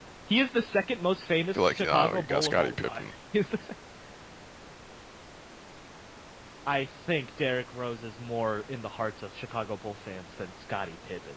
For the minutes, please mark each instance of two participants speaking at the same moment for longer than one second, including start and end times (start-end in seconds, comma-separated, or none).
1.5-3.1